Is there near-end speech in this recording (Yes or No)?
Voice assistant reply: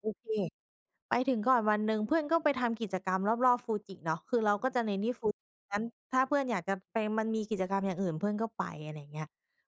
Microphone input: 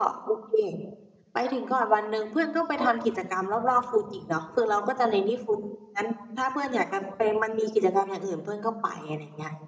No